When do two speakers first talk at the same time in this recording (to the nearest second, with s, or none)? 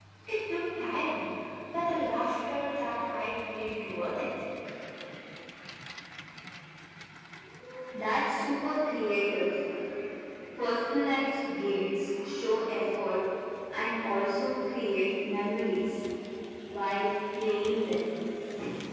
none